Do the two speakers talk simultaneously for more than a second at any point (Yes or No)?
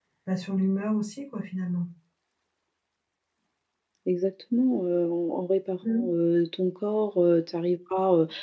No